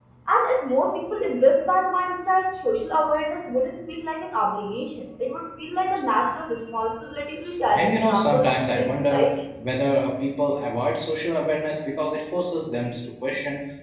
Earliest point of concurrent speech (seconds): 7.7 s

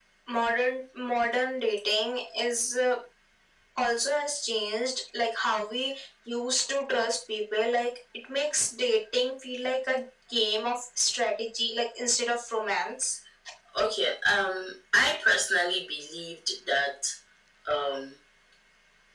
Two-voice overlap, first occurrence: none

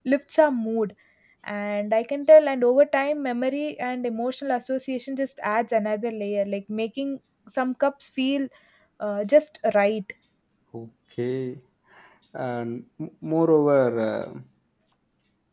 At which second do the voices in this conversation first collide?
none

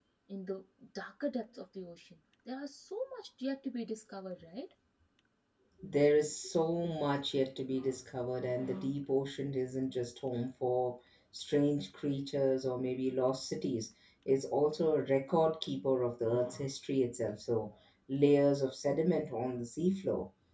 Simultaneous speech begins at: none

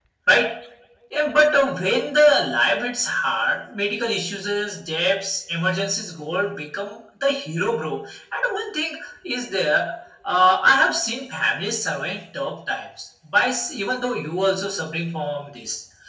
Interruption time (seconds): none

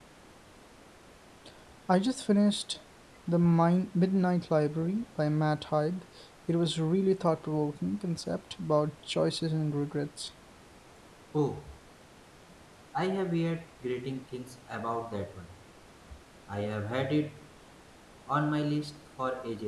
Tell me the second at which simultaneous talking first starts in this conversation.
none

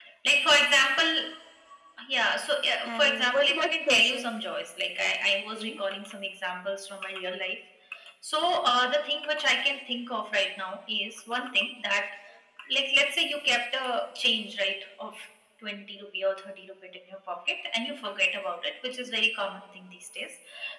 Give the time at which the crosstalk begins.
2.8 s

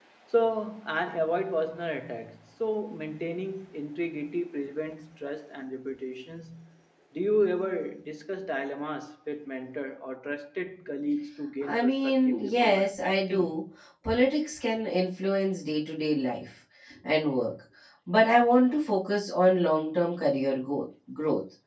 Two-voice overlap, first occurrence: 11.6 s

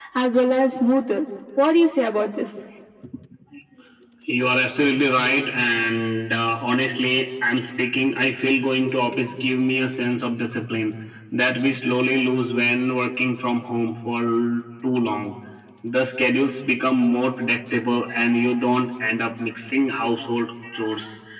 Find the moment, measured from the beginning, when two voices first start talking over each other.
none

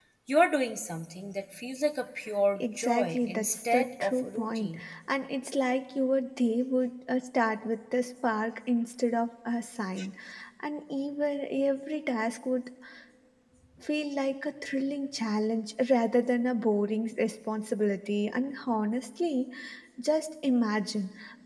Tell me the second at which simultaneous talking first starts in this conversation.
2.5 s

